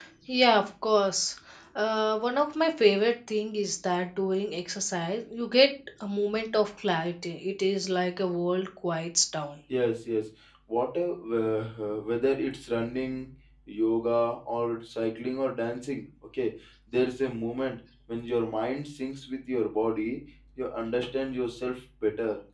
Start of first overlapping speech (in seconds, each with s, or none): none